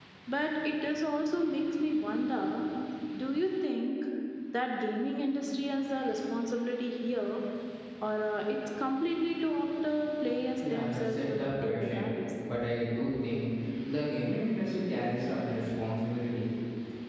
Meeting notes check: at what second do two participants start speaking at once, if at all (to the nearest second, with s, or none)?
11 s